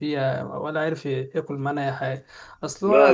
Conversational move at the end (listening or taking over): listening